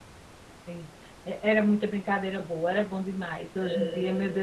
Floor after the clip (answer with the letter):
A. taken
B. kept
B